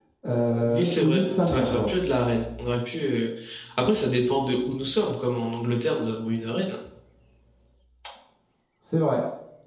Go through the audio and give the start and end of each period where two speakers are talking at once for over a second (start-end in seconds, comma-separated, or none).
0.7-1.9